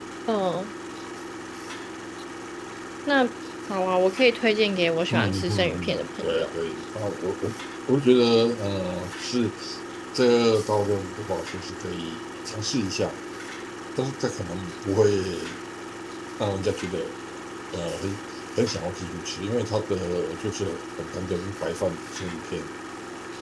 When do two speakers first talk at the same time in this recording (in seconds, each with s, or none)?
5.1 s